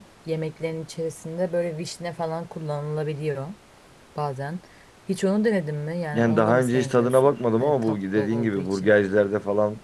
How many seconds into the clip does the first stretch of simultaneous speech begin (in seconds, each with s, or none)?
6.1 s